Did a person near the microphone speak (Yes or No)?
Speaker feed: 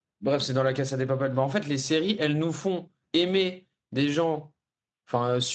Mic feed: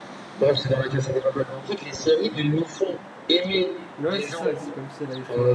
Yes